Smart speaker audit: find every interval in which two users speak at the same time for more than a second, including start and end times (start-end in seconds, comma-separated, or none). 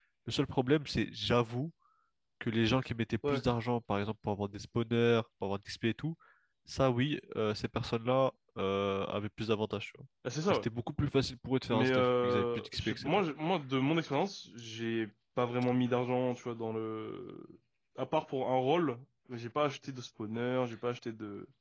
11.7-13.1